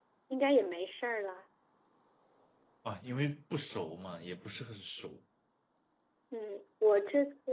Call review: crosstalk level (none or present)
none